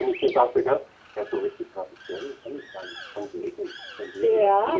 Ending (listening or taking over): taking over